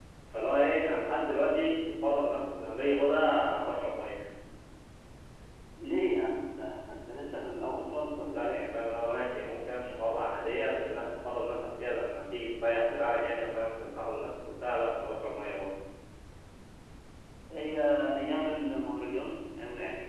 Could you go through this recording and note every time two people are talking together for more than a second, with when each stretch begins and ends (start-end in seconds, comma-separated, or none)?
none